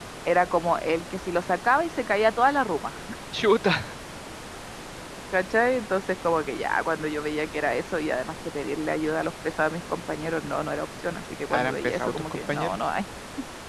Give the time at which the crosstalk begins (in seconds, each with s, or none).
11.5 s